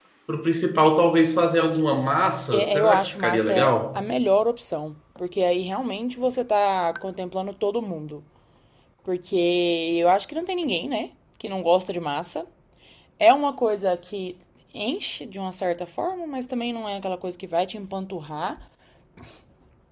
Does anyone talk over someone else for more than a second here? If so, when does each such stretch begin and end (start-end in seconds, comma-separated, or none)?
2.5-4.0